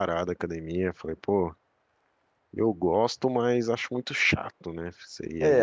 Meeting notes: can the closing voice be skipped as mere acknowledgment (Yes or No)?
No